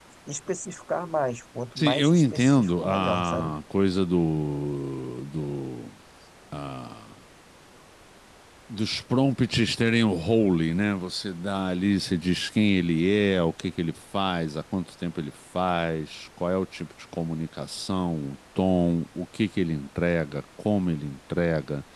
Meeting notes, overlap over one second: present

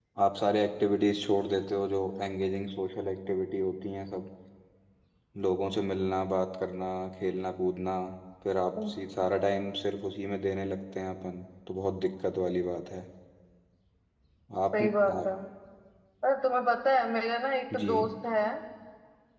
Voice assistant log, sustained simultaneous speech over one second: none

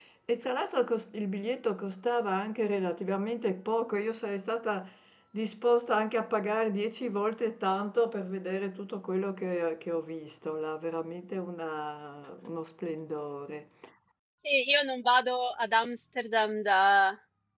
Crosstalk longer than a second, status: none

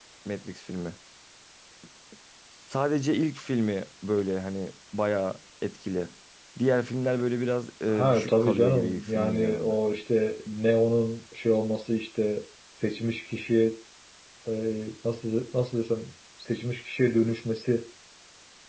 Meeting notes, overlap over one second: present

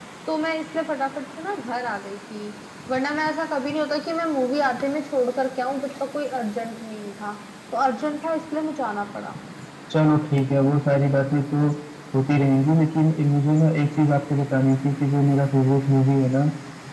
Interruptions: none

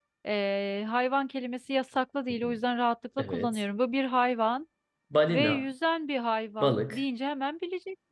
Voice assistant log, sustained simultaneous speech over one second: none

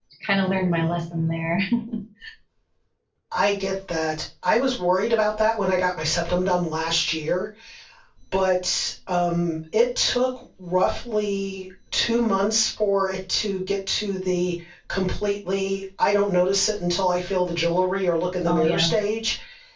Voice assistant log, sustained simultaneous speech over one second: none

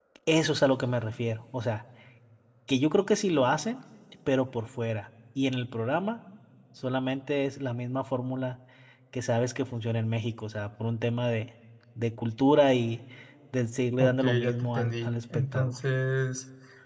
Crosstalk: present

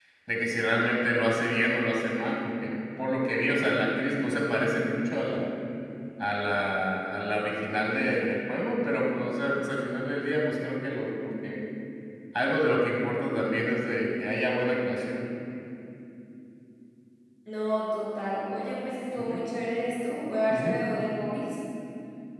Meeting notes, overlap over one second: none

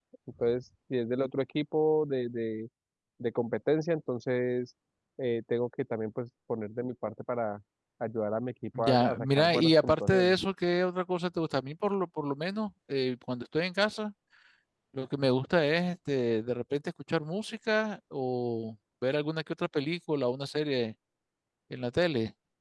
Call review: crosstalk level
present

